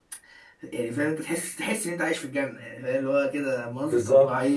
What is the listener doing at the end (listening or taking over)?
listening